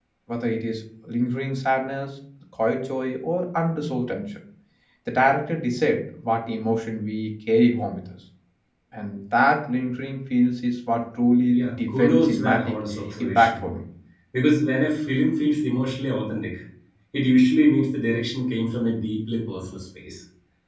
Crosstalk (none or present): present